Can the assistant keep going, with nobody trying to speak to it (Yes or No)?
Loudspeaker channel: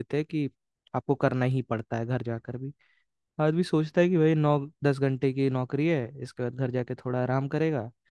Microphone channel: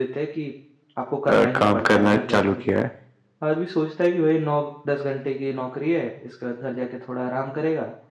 No